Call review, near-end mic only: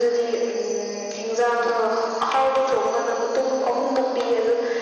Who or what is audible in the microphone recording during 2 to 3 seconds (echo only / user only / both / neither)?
echo only